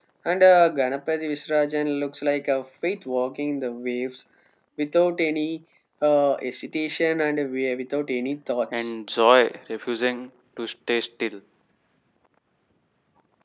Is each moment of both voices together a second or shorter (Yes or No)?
Yes